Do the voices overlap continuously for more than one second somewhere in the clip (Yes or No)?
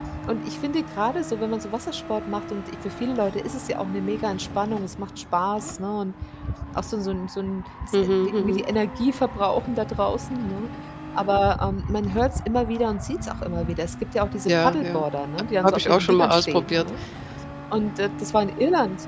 Yes